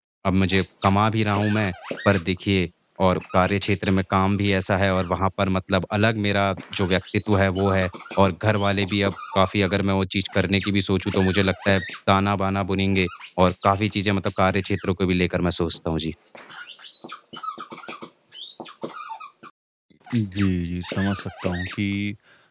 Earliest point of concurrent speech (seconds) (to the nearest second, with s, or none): none